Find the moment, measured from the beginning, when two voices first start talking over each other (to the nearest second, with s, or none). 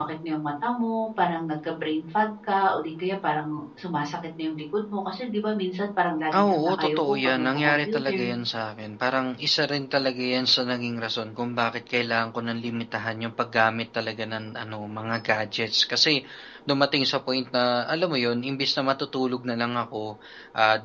6 s